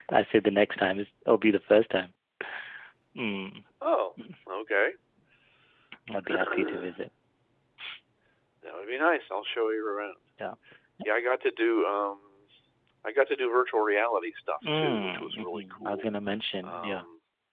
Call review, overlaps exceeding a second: present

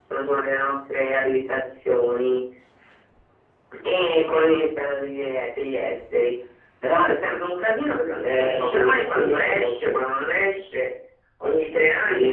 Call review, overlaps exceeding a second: present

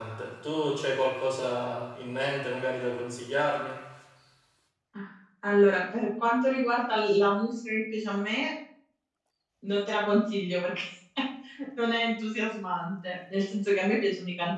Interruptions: none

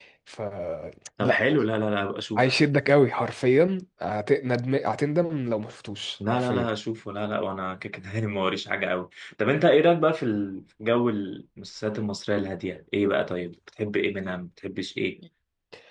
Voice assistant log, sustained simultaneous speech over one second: none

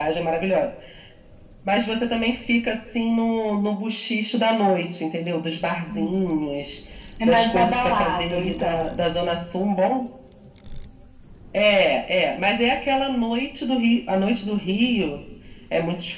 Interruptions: present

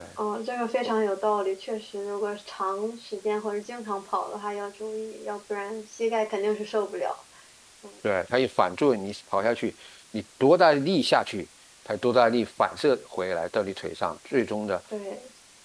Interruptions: none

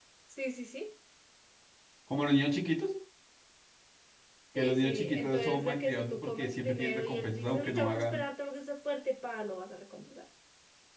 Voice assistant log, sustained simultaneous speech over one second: present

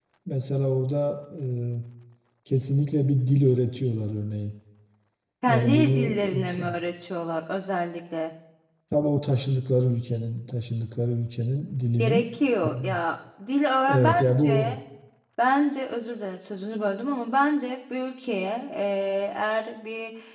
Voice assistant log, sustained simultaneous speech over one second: present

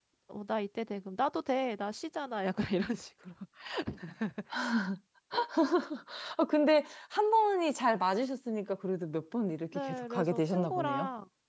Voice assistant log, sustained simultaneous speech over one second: present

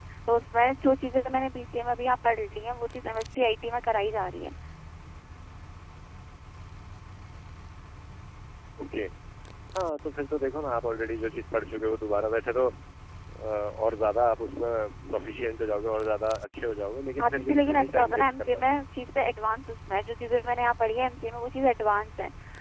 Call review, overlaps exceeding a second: present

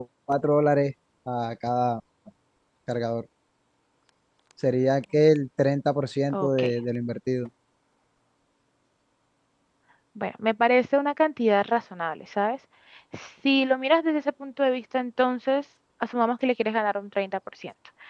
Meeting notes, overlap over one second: none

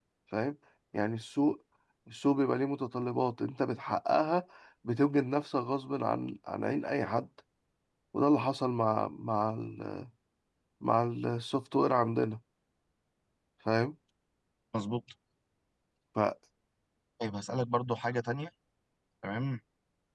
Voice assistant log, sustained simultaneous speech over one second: none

